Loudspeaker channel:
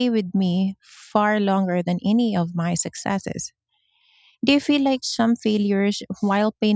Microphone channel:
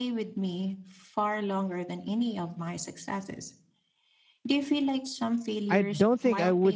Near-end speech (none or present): present